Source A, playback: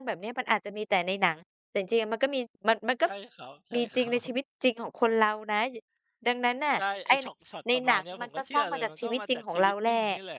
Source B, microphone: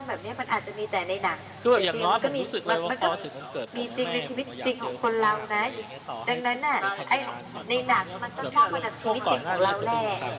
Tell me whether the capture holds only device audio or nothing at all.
No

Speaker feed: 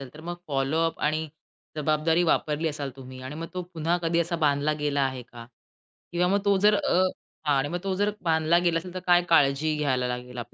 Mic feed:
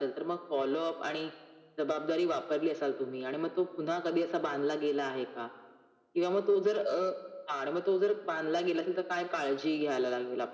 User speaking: No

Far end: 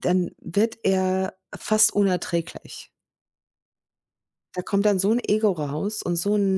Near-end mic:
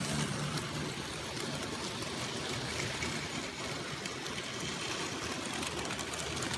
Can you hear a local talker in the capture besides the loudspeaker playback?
No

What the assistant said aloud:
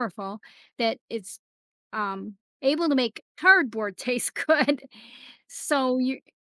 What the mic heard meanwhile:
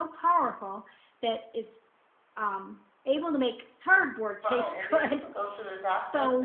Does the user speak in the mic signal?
Yes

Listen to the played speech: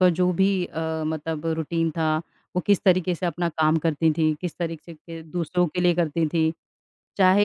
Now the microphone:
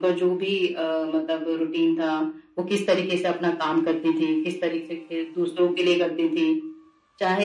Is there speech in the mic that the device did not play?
No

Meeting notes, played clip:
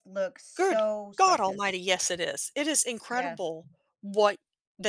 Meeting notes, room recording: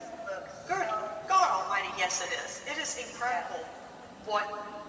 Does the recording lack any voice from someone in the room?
Yes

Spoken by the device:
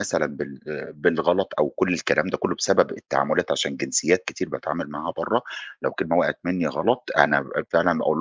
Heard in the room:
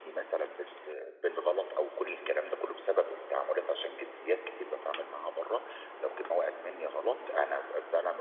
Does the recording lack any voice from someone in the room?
Yes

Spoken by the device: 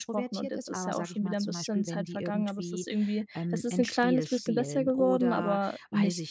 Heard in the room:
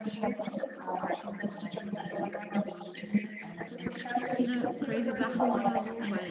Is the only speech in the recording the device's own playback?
No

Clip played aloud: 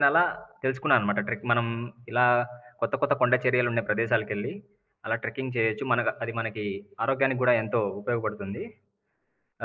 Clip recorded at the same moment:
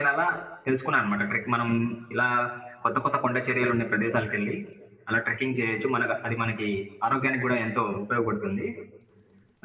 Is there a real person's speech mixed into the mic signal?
No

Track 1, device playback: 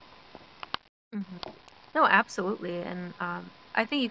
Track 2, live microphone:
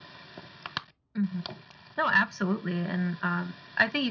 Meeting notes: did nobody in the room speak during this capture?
Yes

